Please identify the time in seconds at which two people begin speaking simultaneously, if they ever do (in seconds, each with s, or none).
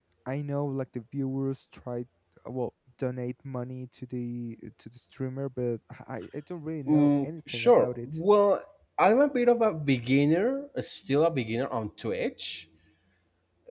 6.9 s